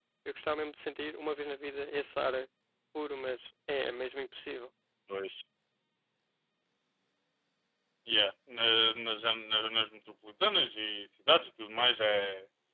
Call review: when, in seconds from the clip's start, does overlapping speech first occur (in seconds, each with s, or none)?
none